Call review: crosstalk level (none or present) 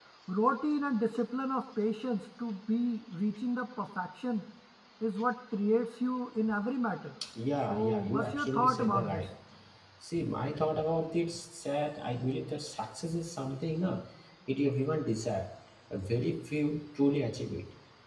present